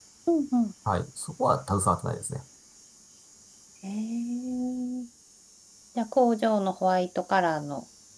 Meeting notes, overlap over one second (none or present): none